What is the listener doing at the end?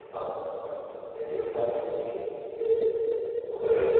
taking over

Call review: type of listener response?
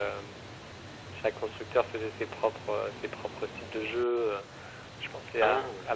listening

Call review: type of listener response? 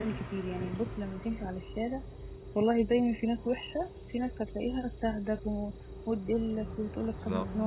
listening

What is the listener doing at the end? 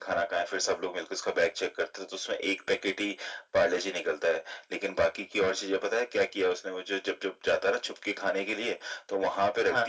listening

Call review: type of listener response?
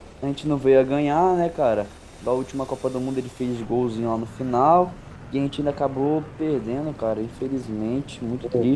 listening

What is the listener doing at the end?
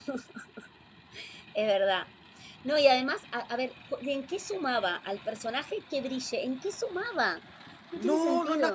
taking over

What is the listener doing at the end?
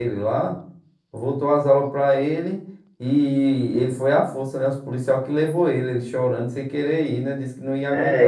taking over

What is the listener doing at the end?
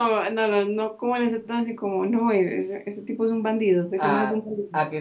taking over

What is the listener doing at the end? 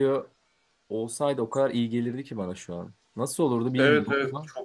taking over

